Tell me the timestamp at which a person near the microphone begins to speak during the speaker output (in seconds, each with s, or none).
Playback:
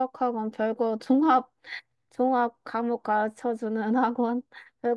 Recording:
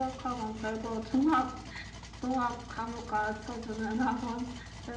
none